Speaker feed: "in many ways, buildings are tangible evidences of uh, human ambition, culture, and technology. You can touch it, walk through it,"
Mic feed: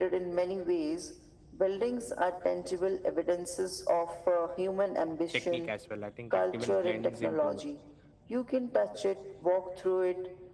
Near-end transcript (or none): technique as well. I think it even blends into